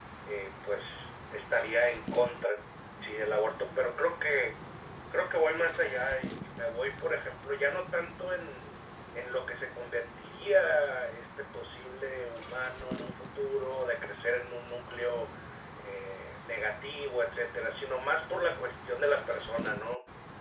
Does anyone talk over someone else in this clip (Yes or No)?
No